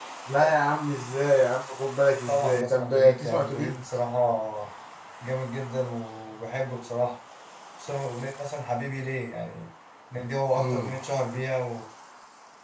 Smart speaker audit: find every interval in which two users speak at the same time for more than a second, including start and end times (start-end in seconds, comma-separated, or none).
2.3-3.8